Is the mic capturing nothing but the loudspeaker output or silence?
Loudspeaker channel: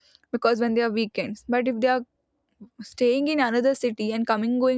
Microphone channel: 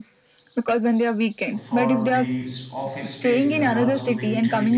No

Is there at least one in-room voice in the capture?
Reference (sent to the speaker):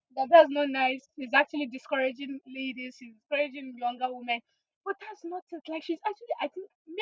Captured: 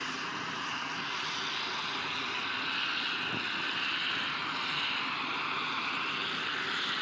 No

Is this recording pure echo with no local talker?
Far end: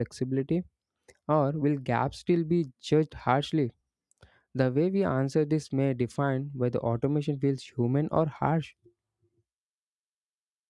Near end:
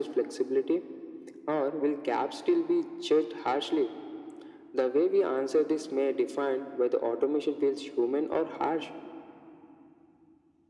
Yes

